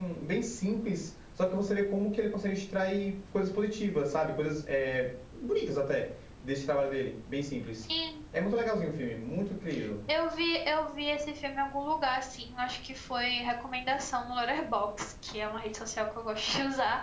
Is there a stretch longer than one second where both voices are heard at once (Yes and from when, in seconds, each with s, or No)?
No